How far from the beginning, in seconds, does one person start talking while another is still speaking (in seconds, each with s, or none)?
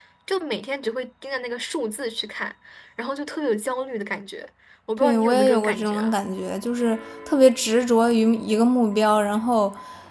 5.0 s